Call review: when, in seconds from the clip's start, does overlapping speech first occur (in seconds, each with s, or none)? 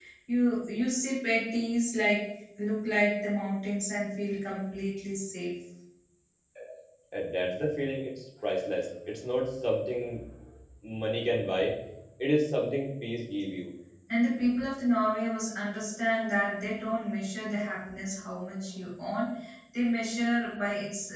none